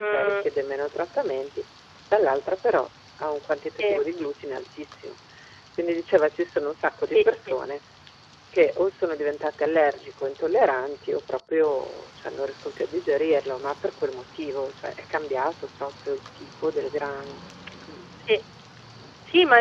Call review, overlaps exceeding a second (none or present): none